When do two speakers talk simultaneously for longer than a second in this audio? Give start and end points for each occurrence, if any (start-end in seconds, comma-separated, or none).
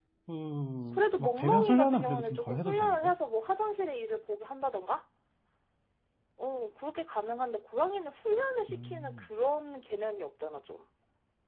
0.9-3.1